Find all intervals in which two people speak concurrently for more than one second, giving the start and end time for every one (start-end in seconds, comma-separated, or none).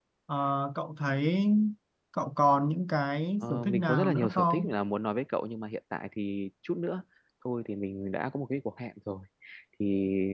3.4-4.7